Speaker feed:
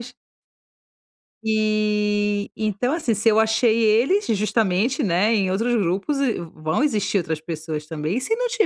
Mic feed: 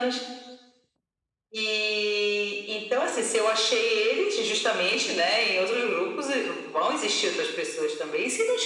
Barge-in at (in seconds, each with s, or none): none